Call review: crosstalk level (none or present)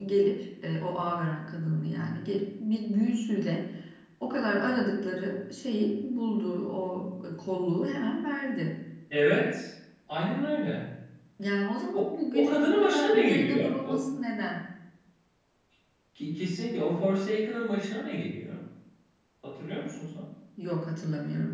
present